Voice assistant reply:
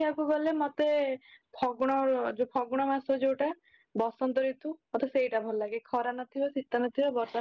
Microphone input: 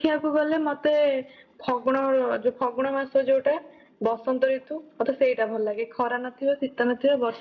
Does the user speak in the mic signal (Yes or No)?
No